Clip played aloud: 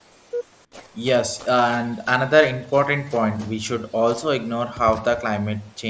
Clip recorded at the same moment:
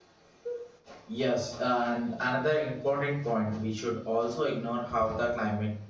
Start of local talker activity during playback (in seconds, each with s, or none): none